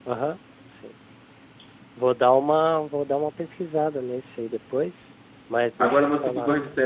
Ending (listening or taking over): taking over